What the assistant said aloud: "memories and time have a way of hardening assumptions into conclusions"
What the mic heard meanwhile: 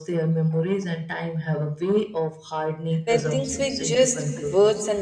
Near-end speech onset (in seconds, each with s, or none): 3.0 s